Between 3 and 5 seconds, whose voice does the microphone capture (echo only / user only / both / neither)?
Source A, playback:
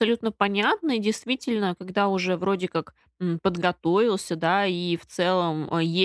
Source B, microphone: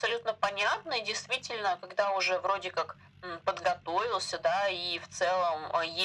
echo only